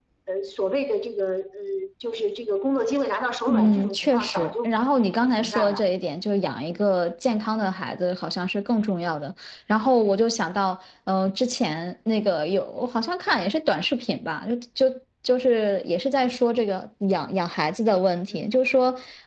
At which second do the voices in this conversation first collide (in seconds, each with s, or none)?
3.5 s